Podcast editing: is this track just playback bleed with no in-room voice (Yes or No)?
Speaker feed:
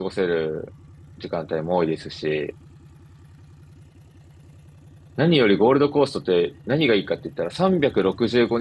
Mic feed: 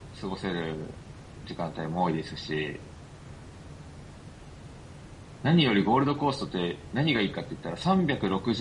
Yes